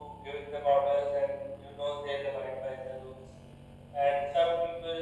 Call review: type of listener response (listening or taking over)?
listening